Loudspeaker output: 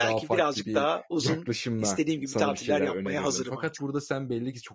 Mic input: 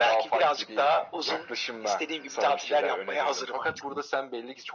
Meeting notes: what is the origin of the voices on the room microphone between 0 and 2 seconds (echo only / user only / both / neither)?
echo only